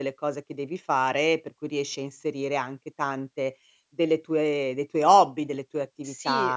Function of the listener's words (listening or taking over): taking over